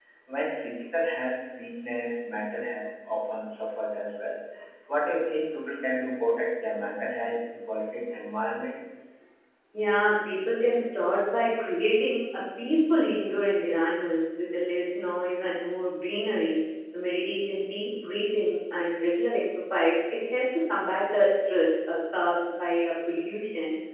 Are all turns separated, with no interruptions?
Yes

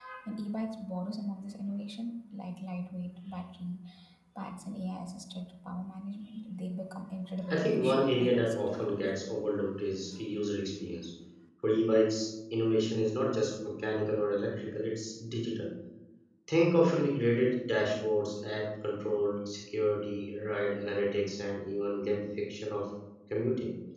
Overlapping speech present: Yes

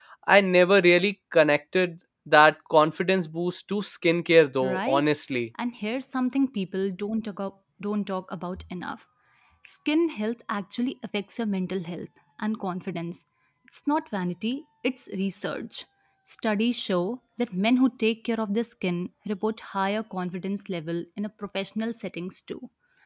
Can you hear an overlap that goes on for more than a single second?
No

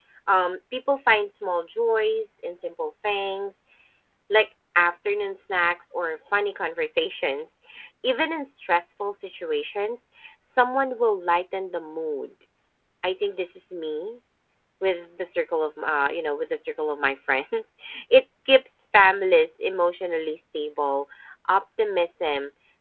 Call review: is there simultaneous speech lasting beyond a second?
No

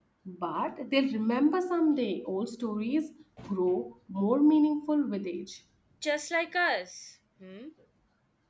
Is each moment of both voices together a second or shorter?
Yes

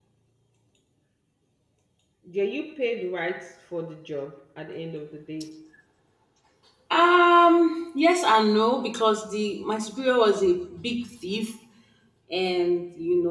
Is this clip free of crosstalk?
Yes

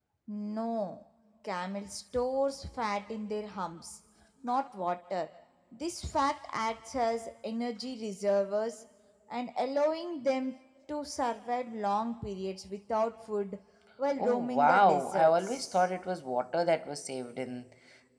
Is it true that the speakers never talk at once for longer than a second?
No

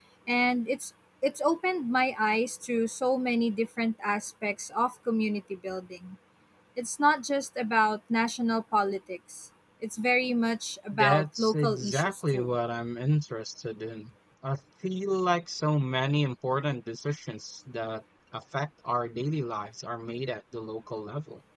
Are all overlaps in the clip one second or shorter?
No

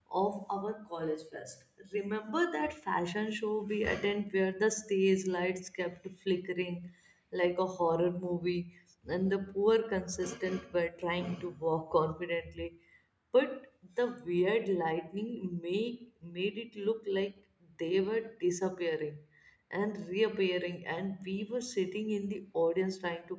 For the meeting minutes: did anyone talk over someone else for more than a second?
No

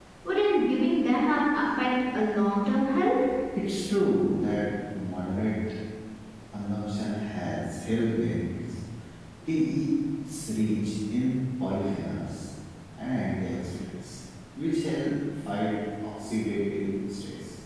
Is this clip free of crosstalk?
Yes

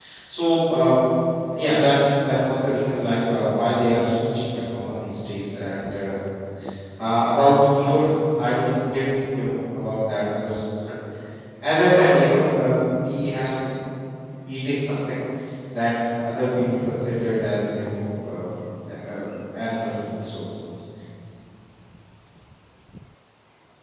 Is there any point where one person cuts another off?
No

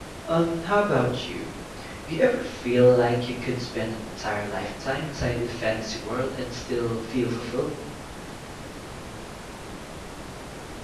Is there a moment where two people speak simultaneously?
No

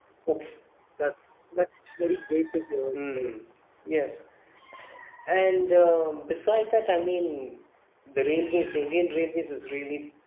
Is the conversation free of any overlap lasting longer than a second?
Yes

